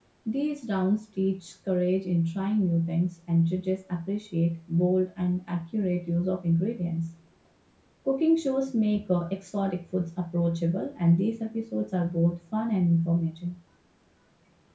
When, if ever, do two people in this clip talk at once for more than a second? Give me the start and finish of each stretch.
none

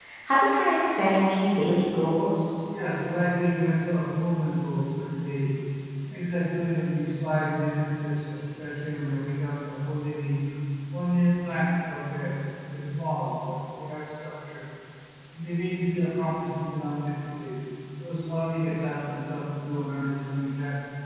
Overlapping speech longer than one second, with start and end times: none

